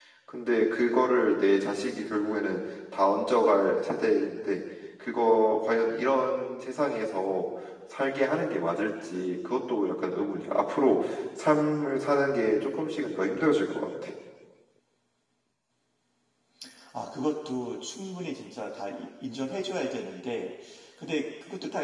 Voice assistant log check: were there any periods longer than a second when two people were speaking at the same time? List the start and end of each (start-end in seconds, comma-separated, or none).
none